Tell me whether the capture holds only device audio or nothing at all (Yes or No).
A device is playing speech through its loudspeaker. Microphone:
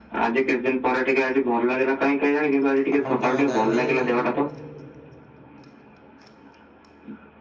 No